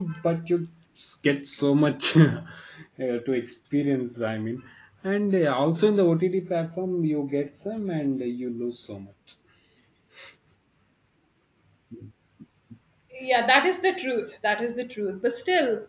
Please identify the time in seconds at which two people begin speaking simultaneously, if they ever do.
none

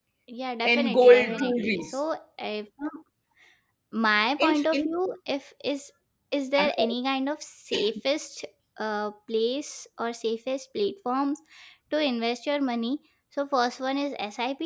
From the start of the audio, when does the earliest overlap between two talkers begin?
1 s

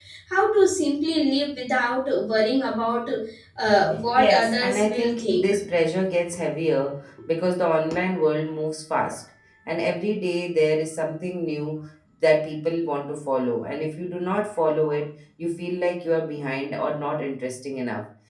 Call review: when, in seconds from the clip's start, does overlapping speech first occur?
4 s

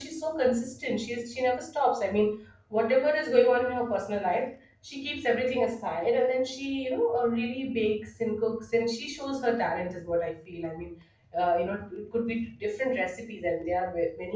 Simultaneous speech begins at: none

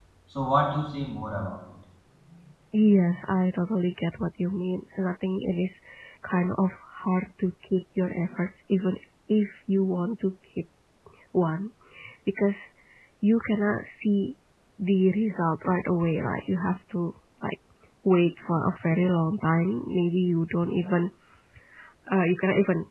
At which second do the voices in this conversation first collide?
none

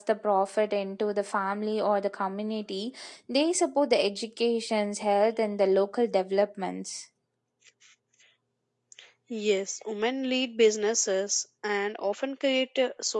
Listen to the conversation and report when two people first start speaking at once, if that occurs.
none

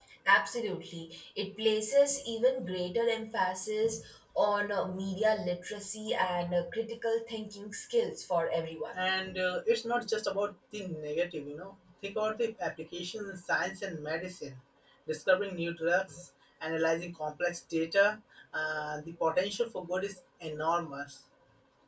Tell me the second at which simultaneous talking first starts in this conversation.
none

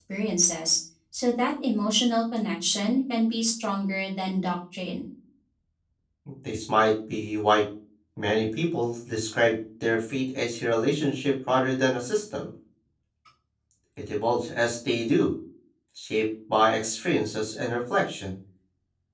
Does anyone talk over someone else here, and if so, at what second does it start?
none

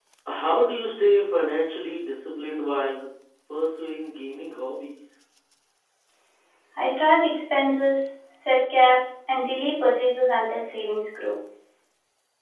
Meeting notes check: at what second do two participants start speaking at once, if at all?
none

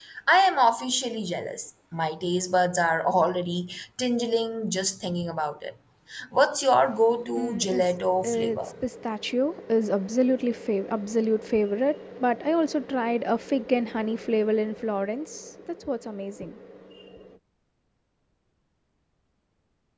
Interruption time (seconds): 7 s

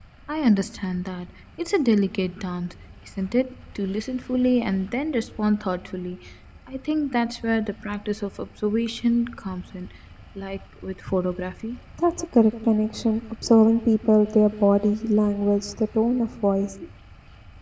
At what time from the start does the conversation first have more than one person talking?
none

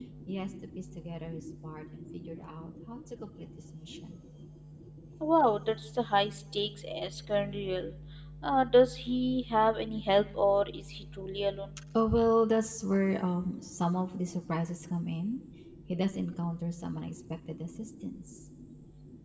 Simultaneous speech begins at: none

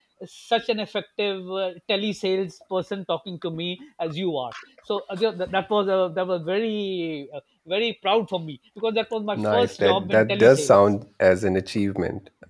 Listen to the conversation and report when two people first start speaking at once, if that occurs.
9 s

